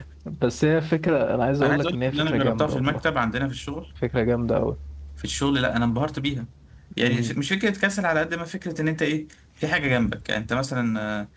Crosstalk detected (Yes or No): Yes